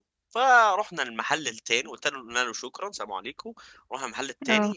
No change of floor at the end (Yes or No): Yes